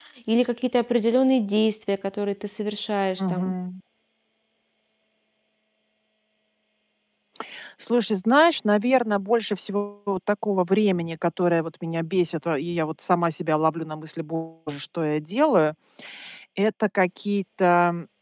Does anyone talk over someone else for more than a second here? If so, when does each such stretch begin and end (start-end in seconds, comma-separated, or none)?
none